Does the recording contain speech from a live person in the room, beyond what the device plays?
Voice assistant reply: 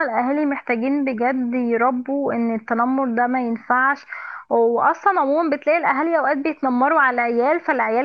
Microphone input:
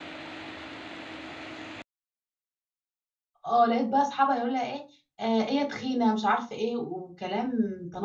Yes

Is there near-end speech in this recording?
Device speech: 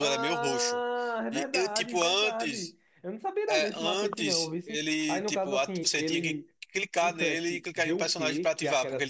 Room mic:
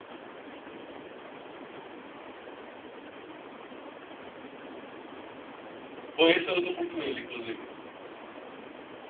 Yes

